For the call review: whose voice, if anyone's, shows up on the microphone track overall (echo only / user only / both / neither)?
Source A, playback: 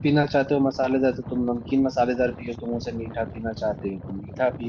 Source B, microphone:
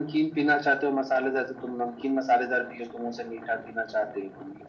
echo only